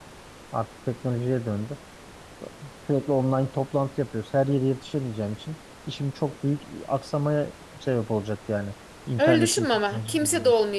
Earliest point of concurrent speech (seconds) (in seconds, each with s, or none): 9.2 s